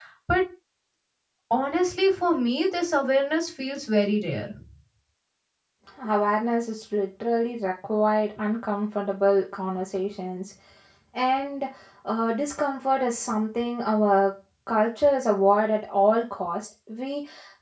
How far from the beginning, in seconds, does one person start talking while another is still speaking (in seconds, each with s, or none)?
none